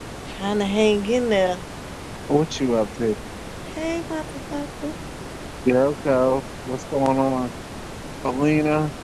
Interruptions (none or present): none